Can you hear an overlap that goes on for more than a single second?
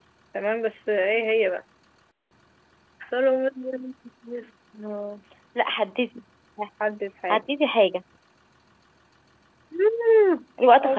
No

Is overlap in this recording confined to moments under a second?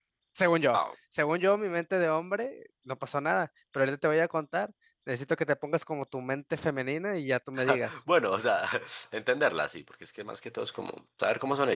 Yes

